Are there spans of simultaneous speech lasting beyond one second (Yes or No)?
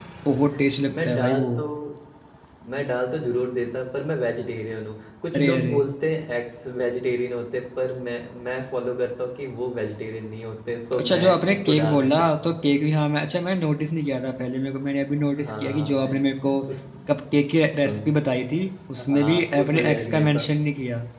Yes